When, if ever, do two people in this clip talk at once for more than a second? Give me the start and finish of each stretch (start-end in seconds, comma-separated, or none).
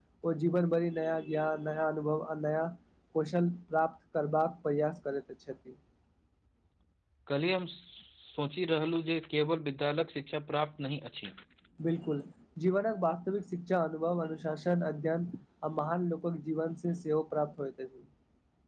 none